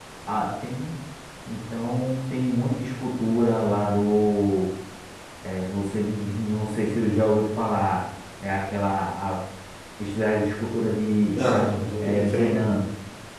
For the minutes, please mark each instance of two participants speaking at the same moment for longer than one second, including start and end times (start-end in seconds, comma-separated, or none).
11.2-12.8